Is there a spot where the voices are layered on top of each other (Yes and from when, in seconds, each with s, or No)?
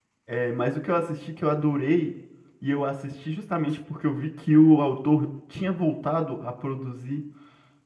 No